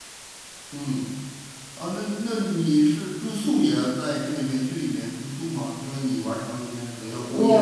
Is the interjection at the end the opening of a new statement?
Yes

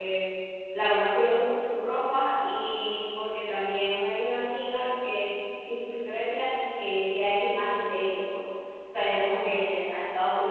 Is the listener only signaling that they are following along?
Yes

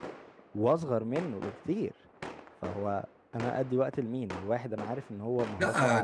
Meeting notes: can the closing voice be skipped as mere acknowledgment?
No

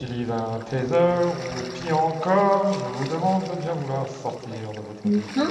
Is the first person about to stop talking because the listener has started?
Yes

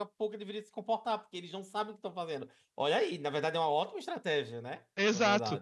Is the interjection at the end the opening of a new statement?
Yes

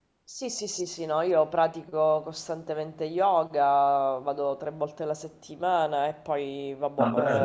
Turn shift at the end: No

